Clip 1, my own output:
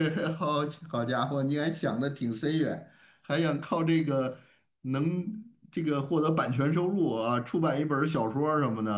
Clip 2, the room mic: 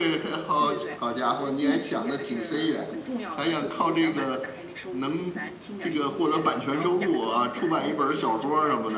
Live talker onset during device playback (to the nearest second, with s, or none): 1 s